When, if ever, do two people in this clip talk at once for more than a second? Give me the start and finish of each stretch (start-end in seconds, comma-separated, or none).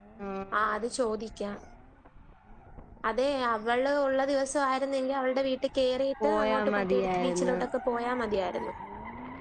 6.2-7.6